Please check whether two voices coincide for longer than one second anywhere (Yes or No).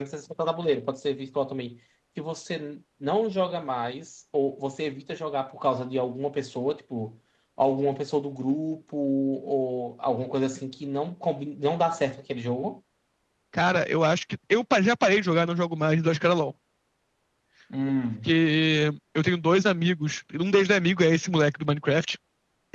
No